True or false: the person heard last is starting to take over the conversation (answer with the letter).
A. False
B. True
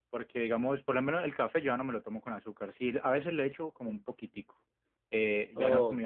A